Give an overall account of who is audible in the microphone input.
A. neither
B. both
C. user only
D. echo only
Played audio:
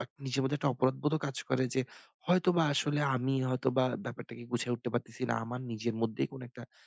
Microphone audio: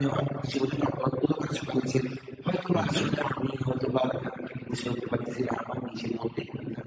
B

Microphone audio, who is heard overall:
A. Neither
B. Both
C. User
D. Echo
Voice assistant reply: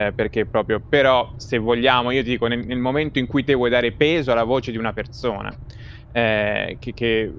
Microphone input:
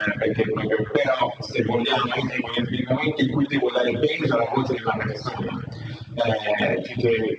D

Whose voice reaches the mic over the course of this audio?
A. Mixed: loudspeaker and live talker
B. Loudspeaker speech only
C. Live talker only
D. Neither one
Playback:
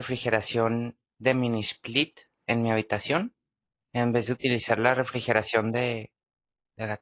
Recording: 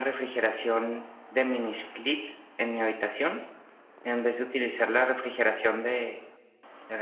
B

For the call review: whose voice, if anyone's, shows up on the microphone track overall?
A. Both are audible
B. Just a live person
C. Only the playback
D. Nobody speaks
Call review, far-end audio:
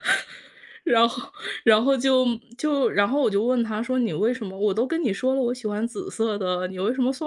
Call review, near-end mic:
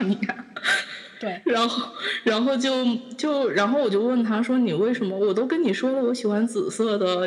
A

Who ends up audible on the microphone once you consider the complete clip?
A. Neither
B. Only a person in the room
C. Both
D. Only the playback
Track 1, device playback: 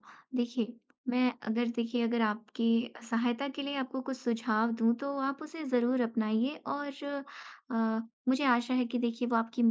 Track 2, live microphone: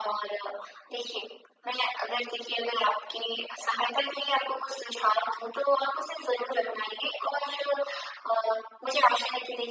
D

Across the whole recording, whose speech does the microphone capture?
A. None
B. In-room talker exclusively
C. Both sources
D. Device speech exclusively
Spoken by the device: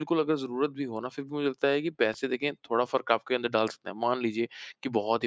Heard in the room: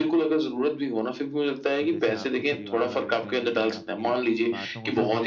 C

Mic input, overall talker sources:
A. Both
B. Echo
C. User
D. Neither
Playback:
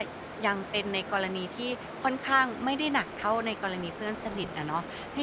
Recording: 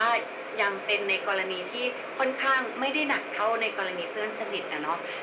B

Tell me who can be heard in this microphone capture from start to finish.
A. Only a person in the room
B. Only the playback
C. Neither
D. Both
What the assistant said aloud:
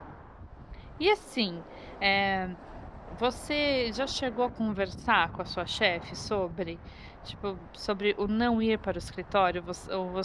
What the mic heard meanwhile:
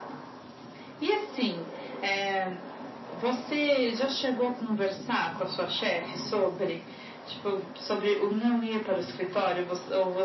B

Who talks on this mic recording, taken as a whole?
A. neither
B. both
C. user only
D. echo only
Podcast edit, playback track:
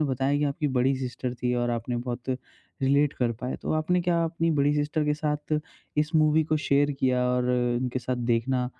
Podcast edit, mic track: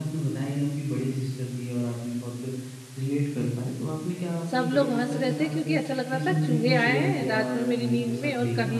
B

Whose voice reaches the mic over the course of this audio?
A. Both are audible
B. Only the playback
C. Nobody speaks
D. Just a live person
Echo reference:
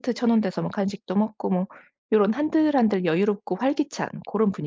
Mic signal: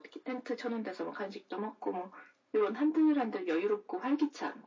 B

